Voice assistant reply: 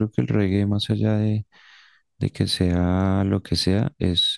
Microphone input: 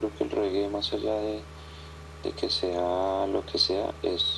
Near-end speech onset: none

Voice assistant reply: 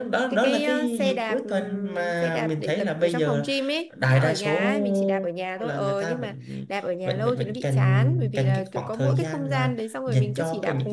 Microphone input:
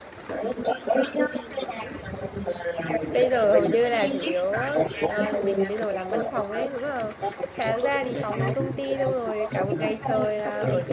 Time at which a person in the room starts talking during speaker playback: 3 s

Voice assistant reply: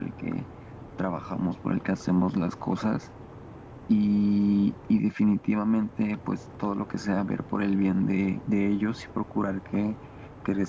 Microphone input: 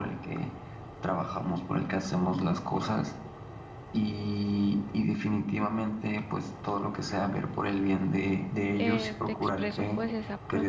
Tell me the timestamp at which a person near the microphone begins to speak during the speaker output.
9 s

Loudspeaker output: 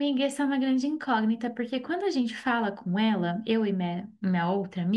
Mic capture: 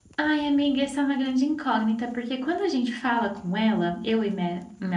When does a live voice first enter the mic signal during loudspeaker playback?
none

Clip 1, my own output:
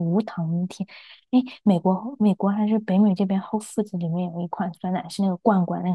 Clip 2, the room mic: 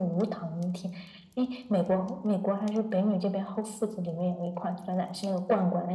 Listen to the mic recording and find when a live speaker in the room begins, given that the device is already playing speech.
none

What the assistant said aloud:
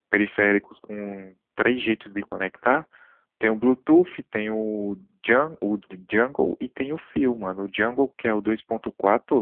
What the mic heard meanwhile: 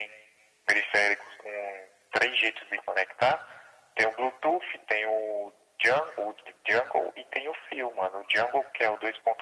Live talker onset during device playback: none

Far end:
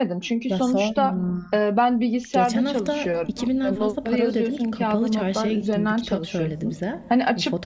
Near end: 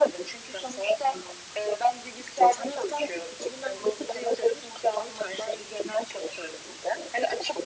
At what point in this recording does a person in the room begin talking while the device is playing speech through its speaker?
none

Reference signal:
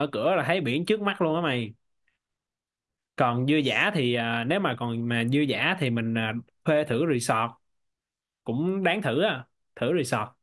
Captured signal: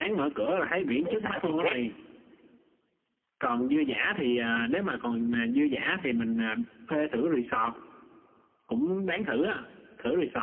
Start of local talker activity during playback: 1 s

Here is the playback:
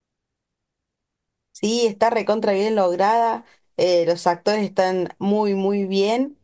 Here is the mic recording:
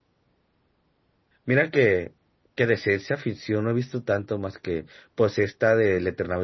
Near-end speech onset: 1 s

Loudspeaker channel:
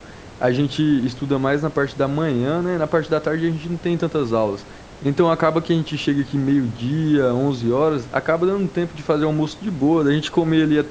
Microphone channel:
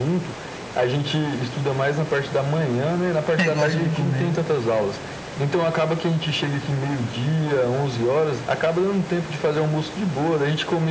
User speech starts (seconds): 3 s

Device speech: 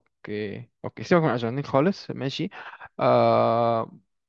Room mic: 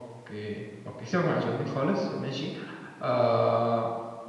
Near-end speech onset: none

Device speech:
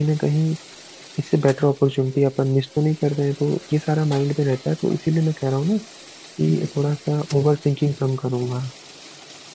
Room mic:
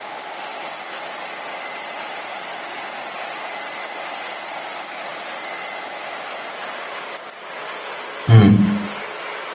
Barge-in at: 8 s

